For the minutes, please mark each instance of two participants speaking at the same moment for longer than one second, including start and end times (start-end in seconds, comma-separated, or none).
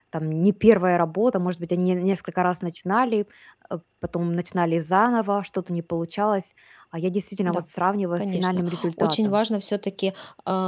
8.2-9.4